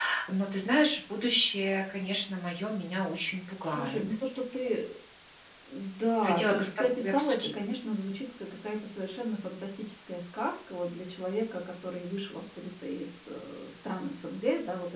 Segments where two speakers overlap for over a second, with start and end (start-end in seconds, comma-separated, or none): 6.2-7.5